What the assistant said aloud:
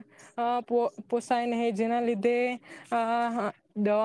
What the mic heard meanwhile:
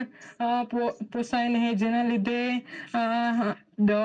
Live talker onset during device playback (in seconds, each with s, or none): none